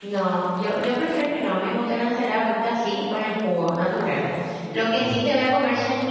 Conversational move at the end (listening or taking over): listening